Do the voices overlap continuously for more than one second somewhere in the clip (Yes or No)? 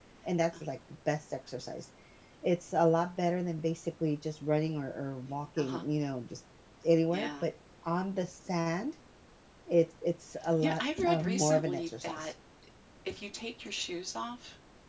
Yes